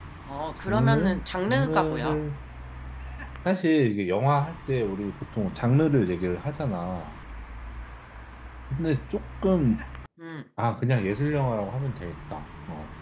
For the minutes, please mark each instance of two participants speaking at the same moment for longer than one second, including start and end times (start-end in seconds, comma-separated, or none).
0.6-2.2